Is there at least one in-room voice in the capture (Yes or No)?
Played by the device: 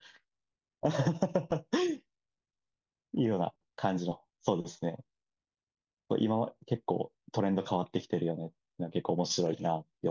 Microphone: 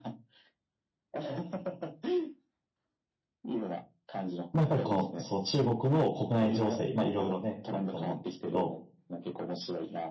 Yes